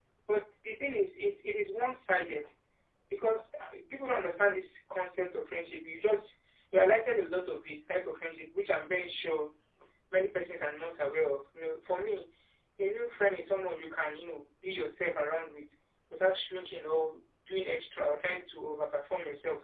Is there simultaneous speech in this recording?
No

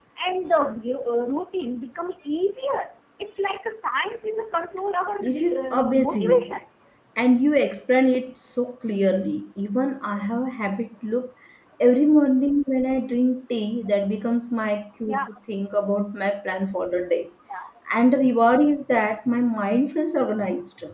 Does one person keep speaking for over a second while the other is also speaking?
Yes, from 5.2 s

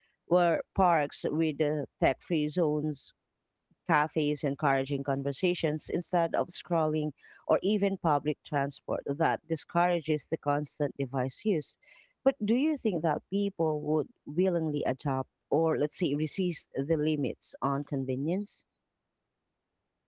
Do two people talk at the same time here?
No

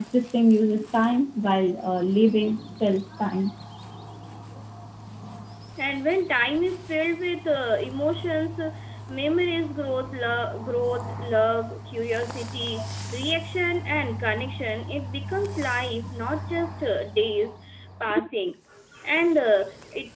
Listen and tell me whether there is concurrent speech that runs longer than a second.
No

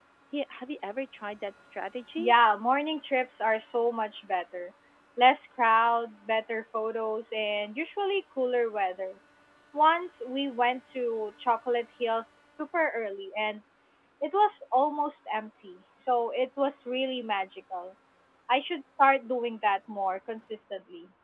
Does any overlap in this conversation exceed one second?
No

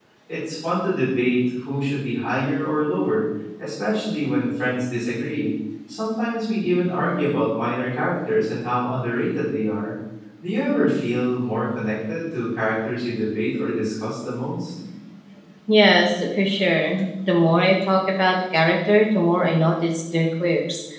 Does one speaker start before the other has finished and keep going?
No

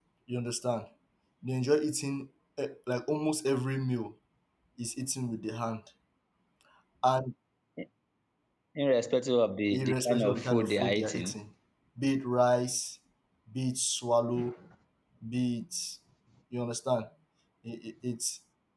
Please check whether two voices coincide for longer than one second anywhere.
Yes, from 9.7 s

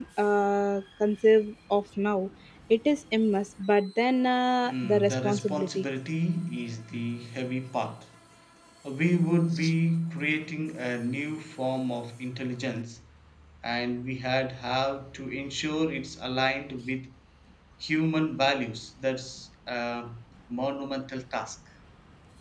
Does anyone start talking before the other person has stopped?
Yes, from 4.6 s

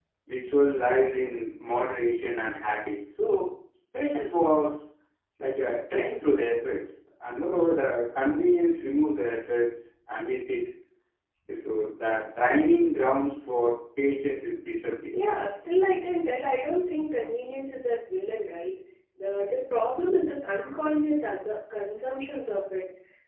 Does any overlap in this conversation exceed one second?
No

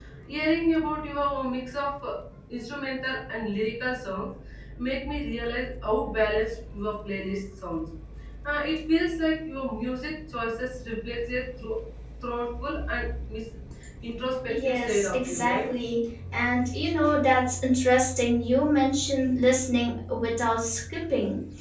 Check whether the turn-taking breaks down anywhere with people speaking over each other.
Yes, from 14.5 s

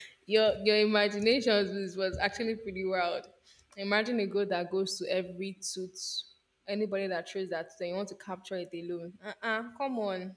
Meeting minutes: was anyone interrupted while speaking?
No

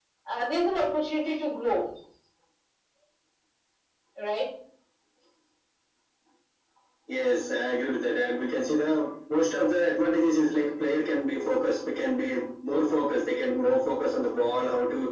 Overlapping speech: No

